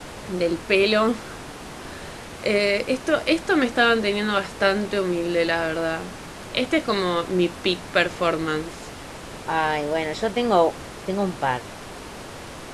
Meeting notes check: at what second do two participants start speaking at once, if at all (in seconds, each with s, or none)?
none